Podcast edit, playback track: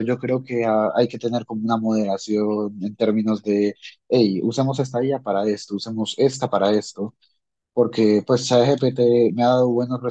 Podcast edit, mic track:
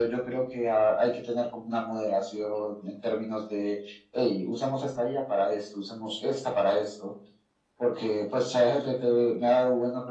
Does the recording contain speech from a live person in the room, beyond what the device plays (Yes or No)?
No